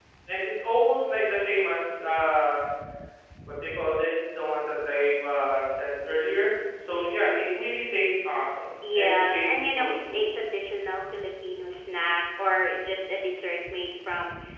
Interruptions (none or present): present